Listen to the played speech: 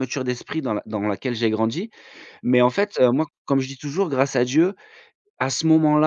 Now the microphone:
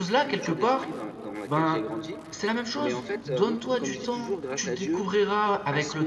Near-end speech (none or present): present